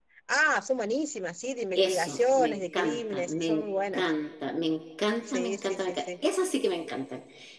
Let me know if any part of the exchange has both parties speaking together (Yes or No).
Yes